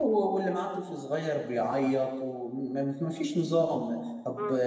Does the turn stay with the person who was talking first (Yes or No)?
Yes